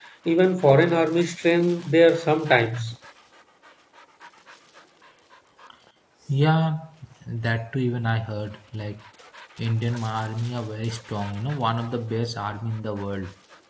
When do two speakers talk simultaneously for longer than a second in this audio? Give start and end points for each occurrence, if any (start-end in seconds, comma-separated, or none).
none